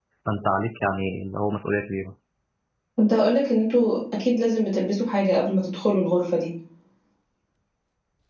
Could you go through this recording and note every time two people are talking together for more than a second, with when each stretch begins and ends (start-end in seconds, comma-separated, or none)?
none